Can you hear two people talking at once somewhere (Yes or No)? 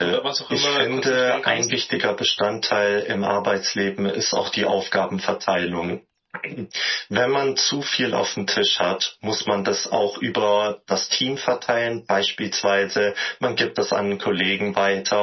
Yes